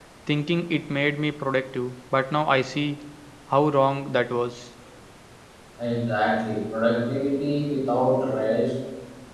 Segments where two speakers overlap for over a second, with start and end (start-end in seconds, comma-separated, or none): none